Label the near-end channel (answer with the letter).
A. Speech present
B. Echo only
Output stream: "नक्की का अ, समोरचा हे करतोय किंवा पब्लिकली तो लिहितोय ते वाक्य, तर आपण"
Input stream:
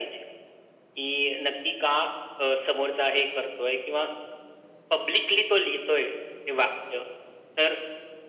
B